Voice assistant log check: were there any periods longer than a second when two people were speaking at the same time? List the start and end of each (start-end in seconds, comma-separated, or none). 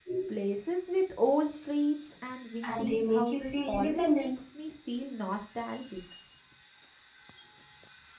2.6-4.3